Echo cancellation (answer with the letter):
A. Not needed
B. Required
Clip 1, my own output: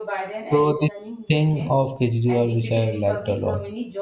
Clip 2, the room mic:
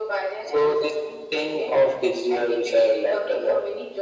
B